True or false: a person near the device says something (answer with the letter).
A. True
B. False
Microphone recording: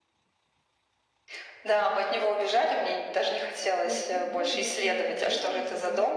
A